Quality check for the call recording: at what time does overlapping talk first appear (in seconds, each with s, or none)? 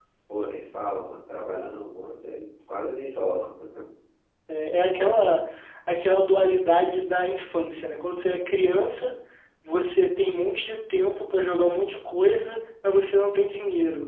none